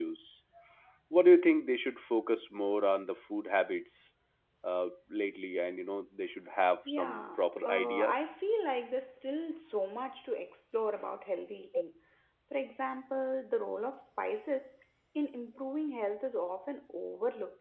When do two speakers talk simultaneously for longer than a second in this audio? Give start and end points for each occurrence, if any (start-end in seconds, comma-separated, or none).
6.9-8.3